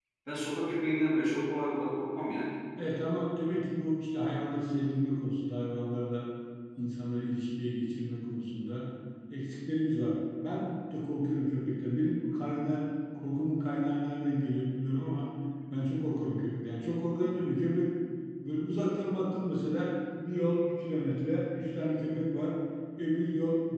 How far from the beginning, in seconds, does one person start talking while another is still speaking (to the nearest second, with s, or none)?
none